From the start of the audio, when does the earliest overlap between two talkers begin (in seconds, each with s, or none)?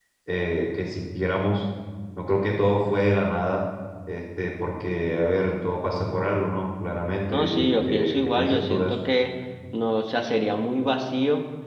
7.3 s